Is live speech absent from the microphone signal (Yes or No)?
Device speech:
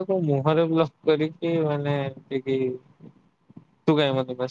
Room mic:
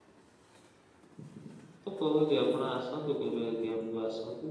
No